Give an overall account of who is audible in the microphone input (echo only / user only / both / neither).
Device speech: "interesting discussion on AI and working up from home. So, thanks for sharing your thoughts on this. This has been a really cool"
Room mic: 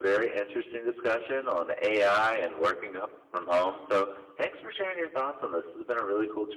echo only